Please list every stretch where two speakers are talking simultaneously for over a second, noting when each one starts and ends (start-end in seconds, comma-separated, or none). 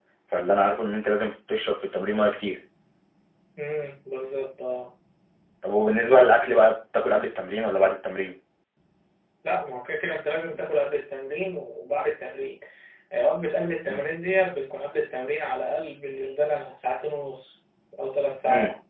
none